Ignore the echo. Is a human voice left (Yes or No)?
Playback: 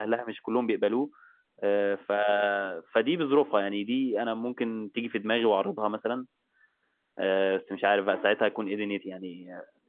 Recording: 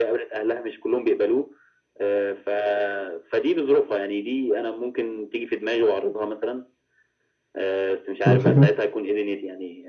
Yes